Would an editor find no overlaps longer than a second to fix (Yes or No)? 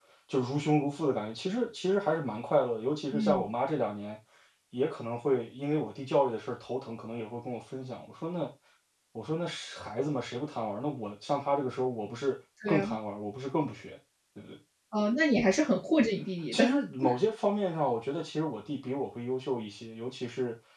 Yes